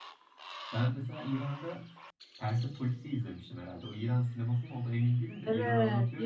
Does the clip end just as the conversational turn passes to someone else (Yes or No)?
Yes